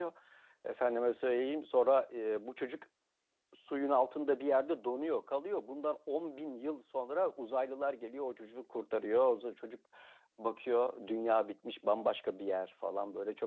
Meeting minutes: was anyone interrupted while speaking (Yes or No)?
No